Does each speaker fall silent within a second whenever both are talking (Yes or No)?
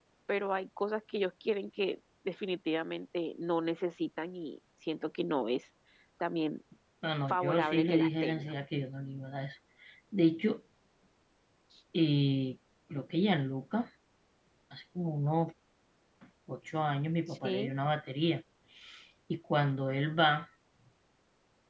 No